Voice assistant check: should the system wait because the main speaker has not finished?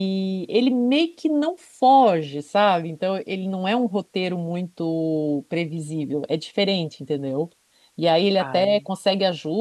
Yes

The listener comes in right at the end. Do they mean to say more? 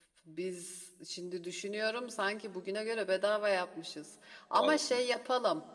No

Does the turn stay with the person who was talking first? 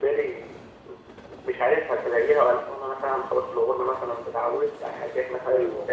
Yes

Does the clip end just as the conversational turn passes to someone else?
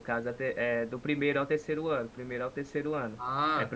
No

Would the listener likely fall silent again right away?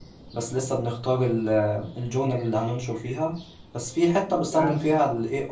Yes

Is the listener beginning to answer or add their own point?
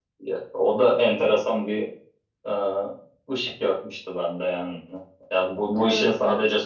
No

